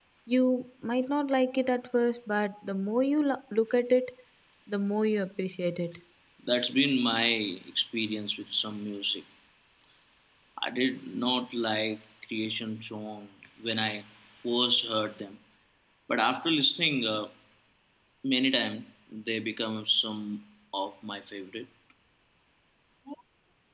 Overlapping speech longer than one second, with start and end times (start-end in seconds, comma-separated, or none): none